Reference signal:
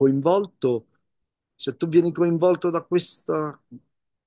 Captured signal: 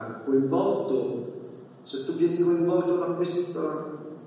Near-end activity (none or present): none